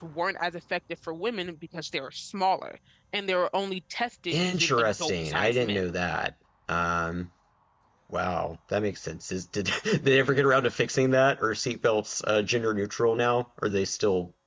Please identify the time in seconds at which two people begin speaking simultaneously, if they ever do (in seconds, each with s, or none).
4.3 s